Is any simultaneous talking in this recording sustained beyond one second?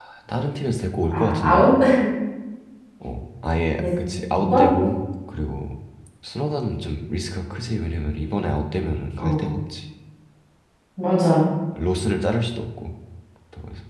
No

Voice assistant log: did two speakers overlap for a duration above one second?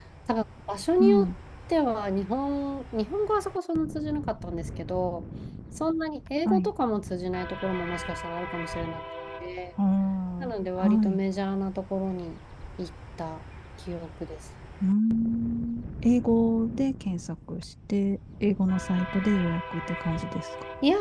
No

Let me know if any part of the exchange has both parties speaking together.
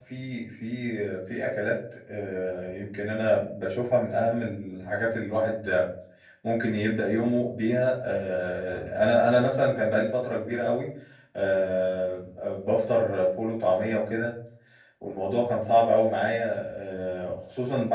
No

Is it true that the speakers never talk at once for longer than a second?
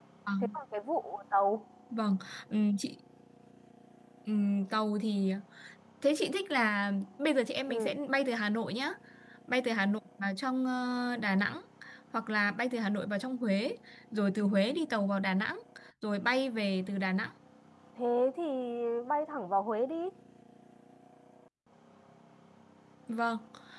Yes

